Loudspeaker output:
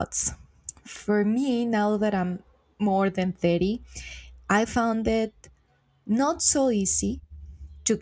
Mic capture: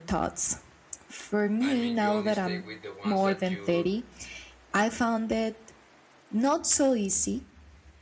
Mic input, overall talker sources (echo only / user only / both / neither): both